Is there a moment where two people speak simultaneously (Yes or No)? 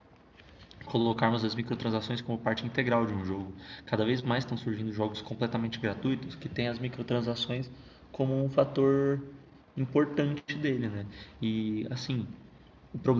No